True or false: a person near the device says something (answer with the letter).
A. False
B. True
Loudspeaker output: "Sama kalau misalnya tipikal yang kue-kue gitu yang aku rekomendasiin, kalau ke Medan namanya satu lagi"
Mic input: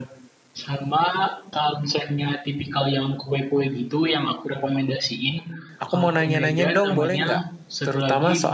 B